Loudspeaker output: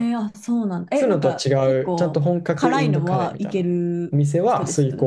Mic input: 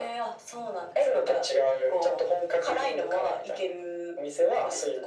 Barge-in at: none

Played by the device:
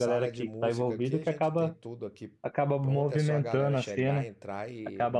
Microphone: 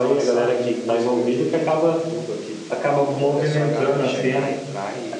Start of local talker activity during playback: none

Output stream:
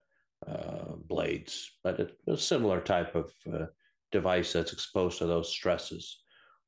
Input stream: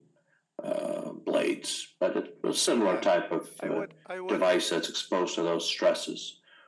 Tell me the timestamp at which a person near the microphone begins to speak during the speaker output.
2.7 s

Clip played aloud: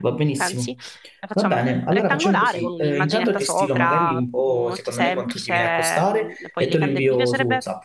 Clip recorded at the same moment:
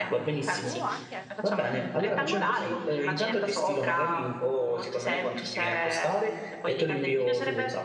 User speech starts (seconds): 0.6 s

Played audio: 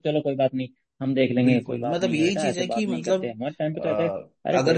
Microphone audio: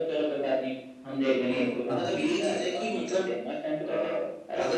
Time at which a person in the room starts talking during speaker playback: 1.9 s

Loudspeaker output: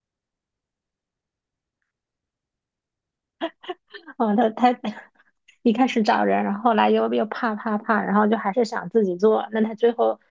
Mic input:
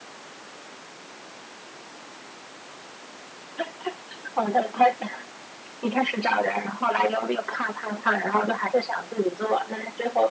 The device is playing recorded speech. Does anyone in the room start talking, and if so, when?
none

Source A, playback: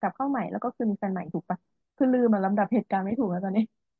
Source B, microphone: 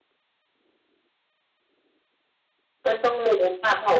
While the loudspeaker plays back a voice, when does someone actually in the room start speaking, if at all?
2.8 s

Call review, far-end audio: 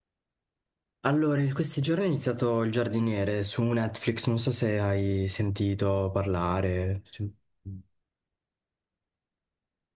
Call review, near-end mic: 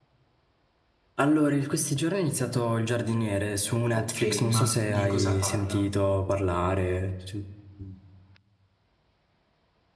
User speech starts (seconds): 3.9 s

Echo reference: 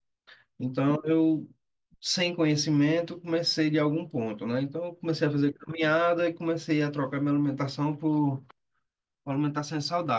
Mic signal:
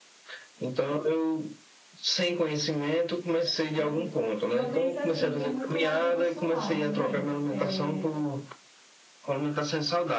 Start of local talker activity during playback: 3.8 s

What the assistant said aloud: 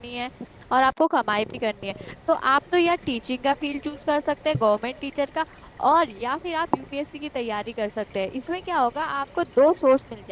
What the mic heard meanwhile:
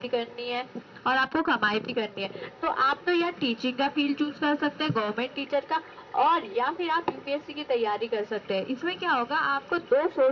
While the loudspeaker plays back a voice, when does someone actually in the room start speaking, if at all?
none

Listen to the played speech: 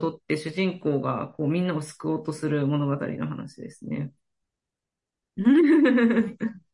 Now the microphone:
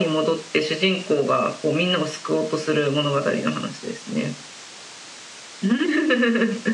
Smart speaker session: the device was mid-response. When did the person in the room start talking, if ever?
none

